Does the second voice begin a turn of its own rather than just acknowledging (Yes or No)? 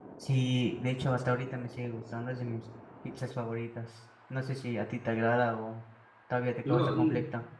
Yes